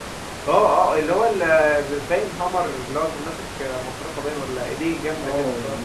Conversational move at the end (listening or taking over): taking over